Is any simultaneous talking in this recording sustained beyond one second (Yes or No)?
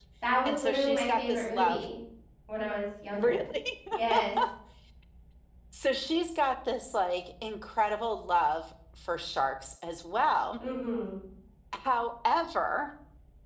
Yes